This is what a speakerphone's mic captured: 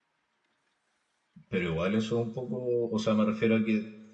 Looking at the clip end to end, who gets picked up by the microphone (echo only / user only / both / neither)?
user only